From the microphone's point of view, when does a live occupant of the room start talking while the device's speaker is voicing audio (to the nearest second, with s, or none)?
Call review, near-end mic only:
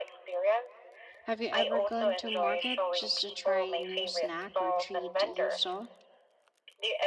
1 s